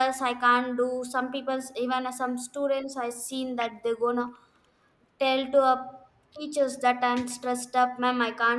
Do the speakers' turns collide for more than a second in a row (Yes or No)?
No